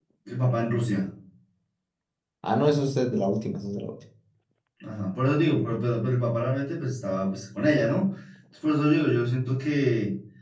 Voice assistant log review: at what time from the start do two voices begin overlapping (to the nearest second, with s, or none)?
none